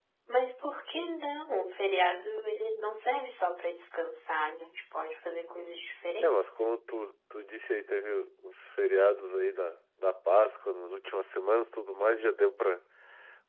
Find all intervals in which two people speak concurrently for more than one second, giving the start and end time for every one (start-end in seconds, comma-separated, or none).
none